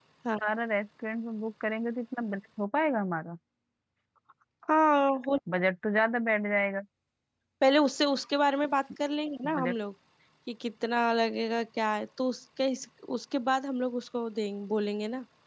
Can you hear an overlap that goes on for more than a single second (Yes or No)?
No